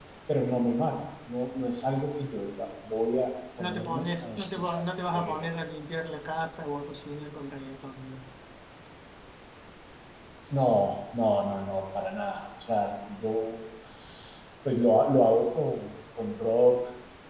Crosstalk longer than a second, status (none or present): present